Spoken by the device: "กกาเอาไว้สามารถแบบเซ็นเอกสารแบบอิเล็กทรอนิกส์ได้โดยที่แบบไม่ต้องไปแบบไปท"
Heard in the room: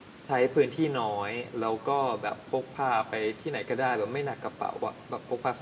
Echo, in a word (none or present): none